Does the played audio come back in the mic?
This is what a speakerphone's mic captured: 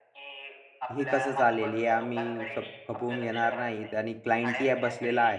Yes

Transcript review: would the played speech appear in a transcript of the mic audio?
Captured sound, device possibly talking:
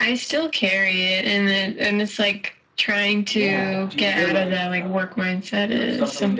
Yes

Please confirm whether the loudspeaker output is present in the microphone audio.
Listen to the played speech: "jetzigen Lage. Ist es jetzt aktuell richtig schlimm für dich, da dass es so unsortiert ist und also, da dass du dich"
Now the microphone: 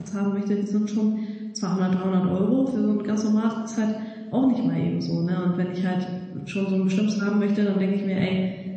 No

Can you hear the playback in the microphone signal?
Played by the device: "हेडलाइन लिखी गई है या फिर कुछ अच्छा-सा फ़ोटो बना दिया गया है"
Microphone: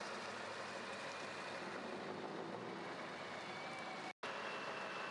No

